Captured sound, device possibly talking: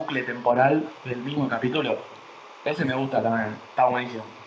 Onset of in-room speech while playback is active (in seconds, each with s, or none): none